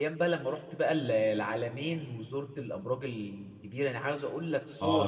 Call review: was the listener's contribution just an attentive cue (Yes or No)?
No